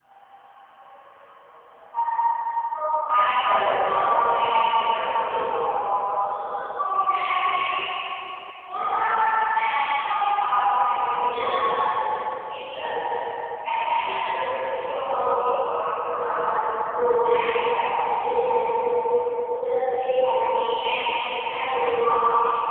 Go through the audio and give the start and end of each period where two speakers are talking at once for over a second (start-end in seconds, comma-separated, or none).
3.4-5.5